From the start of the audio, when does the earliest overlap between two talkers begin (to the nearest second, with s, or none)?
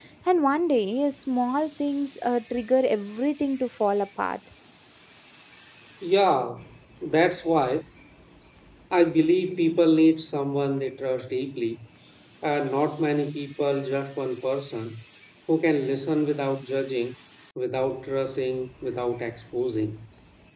none